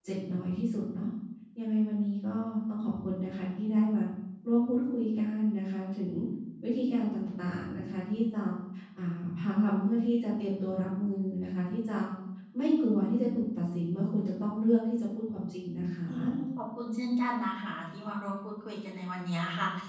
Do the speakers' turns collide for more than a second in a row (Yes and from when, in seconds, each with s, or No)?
No